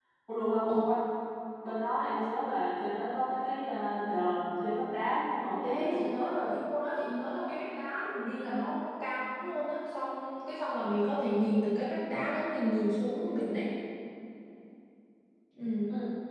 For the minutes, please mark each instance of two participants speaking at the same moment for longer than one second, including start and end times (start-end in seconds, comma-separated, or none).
none